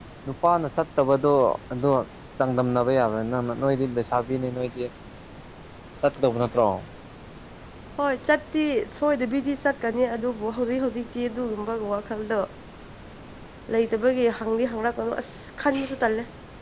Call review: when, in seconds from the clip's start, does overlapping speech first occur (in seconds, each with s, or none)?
none